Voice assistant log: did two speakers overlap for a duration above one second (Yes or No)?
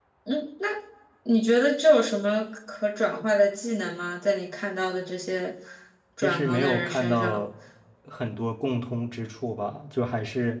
Yes